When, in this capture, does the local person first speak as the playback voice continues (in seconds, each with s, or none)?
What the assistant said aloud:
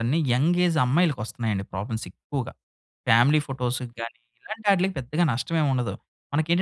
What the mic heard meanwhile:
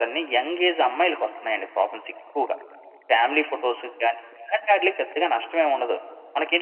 none